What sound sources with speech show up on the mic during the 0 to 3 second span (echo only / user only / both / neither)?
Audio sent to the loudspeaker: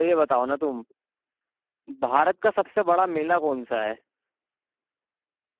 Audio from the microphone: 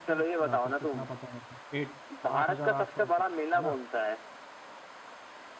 both